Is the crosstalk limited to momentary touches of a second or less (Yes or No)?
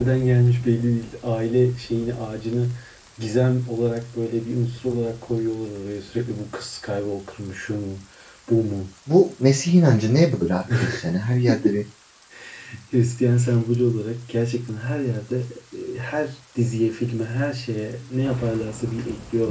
Yes